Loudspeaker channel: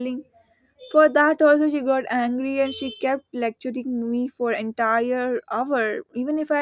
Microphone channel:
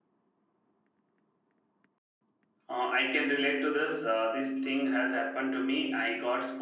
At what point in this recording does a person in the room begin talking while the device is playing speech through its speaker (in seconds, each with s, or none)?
2.7 s